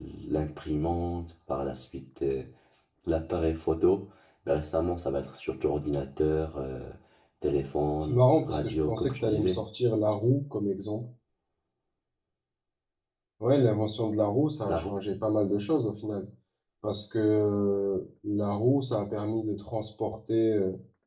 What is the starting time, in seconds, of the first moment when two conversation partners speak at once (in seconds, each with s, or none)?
8.0 s